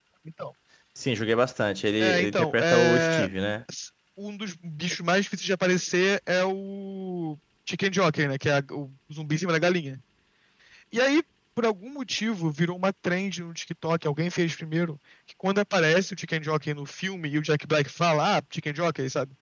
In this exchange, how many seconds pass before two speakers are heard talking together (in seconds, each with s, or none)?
2.0 s